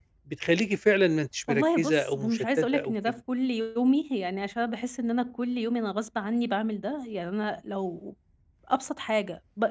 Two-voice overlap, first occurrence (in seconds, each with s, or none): 1.5 s